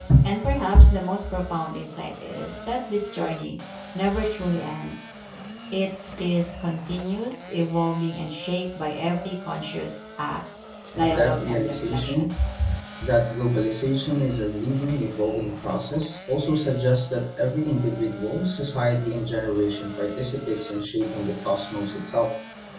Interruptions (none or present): present